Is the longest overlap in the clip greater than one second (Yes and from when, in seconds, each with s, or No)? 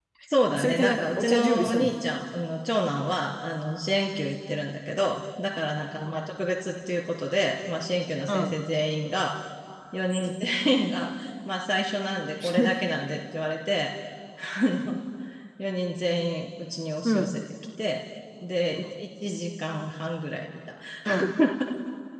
Yes, from 0.5 s